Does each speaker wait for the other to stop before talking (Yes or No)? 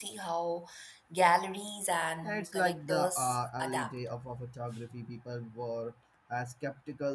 No